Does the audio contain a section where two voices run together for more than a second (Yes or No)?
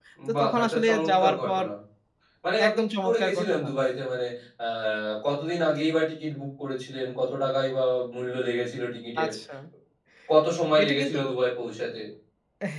Yes